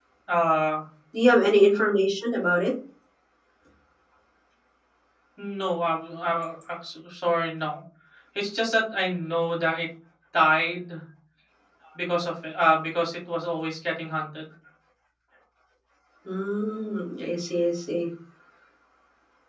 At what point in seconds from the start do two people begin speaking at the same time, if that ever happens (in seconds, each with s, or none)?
none